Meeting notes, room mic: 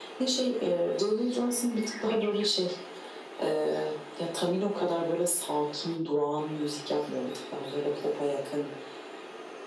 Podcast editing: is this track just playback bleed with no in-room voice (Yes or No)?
Yes